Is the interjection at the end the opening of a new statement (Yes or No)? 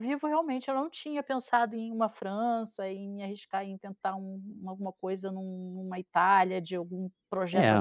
Yes